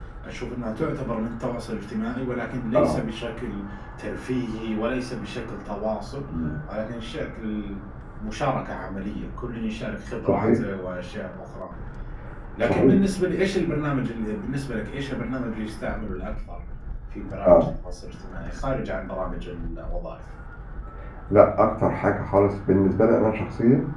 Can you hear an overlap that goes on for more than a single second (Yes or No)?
No